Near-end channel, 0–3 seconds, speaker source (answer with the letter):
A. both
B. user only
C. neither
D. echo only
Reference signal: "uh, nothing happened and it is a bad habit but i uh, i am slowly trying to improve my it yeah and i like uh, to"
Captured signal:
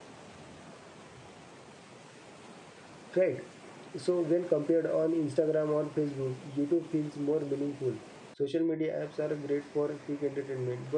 C